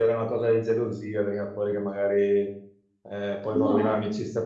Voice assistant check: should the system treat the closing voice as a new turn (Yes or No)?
No